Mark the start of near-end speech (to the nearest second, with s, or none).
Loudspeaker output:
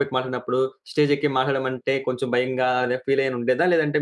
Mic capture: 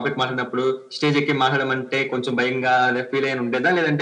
none